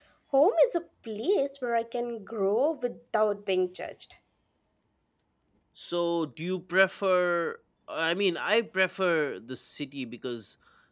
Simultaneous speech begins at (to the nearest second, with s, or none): none